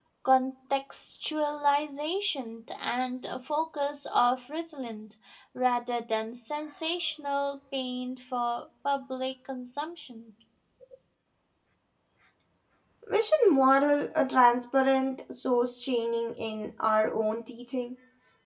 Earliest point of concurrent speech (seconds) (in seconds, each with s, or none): none